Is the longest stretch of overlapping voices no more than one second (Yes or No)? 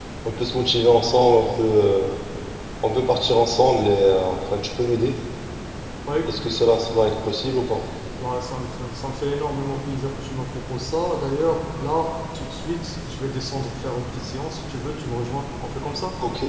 Yes